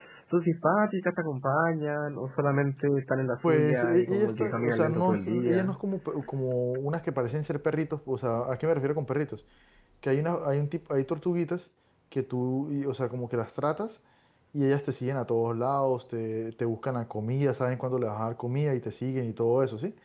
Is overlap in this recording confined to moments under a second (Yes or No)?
No